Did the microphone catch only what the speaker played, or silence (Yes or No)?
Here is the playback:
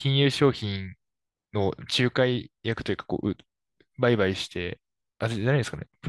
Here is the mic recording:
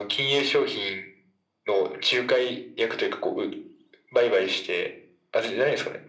Yes